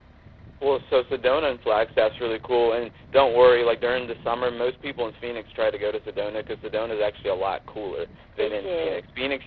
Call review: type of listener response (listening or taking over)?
listening